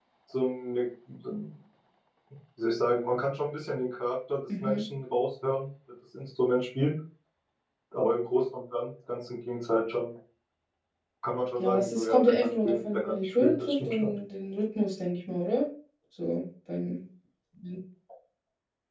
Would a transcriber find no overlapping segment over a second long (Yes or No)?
No